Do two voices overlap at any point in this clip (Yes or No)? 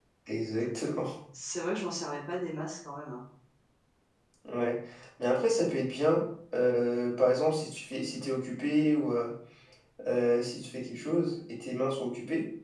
No